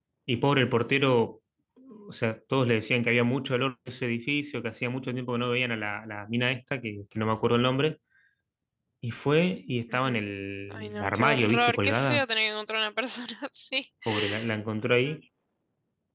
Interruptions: present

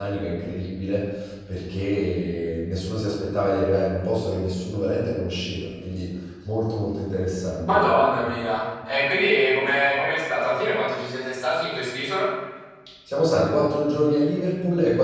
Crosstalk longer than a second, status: none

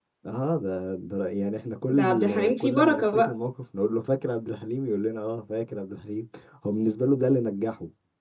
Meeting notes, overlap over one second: present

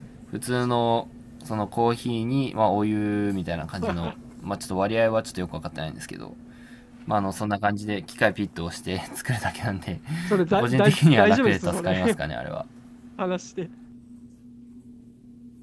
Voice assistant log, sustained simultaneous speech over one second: present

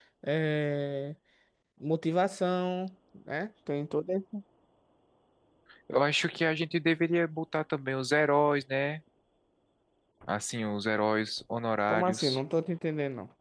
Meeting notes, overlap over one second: none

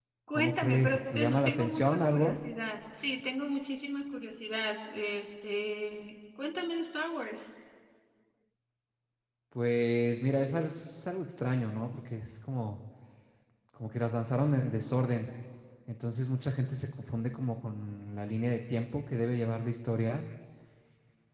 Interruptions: present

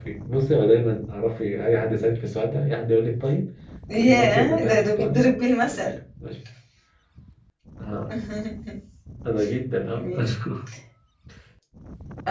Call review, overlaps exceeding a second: present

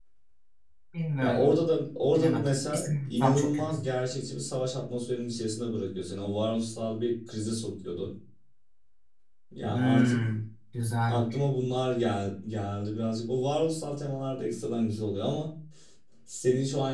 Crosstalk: present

